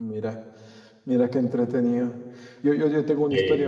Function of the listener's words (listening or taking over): listening